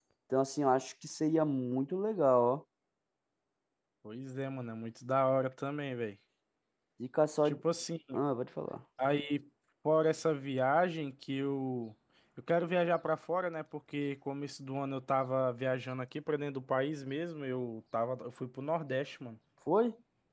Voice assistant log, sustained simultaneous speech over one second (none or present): none